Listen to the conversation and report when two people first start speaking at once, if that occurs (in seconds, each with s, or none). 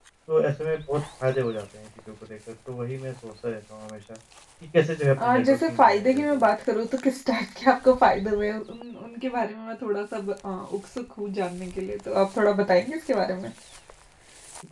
5.2 s